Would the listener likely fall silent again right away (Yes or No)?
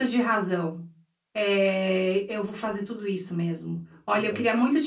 Yes